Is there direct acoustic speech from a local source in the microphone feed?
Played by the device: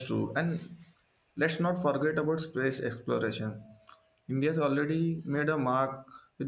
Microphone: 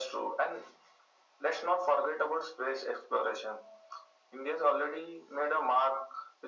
No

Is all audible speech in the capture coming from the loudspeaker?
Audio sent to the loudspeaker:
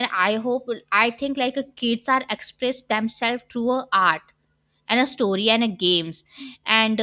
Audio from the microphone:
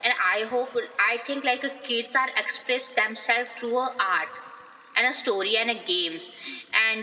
Yes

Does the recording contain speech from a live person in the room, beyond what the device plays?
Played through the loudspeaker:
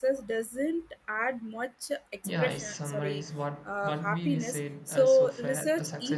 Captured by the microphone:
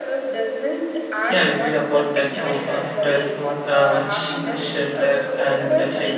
Yes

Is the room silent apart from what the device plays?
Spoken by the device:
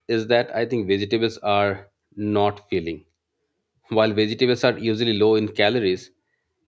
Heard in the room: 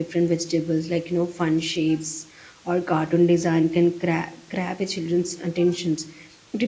No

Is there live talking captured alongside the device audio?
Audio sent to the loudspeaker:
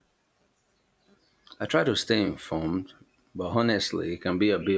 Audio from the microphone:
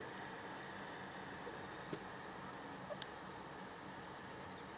No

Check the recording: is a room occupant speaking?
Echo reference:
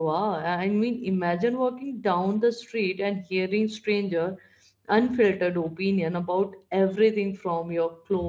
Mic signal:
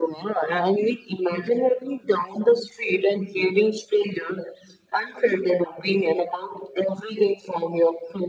No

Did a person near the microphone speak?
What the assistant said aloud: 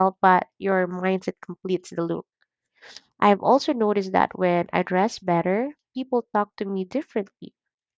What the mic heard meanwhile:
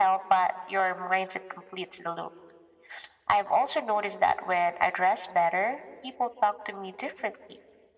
No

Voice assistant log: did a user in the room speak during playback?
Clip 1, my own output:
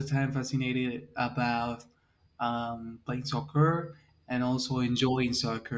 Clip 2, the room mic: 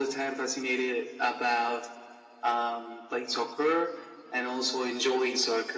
No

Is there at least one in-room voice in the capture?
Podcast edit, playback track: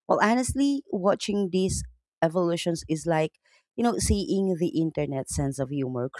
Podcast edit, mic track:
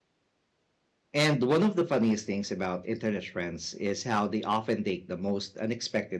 Yes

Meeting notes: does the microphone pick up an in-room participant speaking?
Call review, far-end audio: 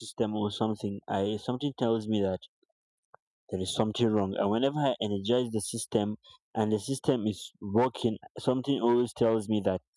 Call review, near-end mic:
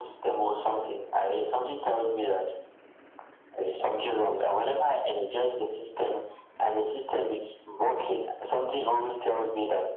No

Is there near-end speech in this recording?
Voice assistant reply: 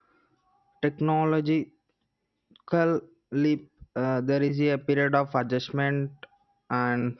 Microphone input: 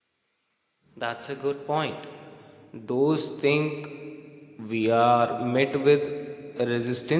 Yes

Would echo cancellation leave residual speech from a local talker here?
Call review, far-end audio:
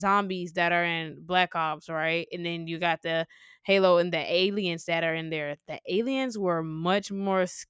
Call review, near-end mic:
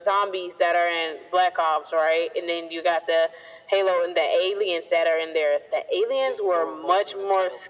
Yes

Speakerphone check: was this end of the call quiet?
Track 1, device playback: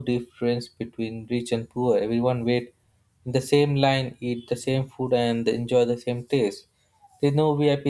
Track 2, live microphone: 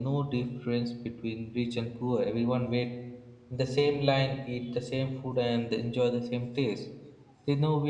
Yes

